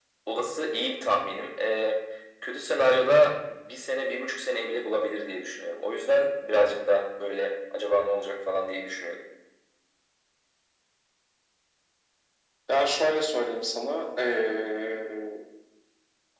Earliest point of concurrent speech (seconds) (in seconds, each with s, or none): none